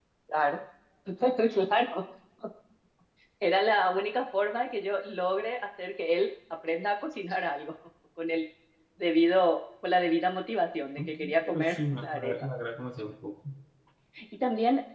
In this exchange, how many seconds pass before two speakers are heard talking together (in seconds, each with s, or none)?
11.0 s